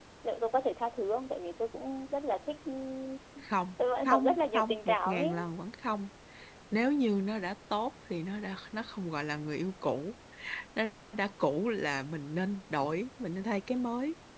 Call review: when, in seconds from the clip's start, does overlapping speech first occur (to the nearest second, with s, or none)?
4 s